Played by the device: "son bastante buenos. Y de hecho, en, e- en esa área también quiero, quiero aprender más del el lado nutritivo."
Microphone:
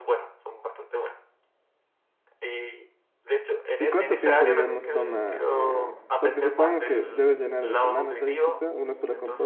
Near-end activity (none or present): present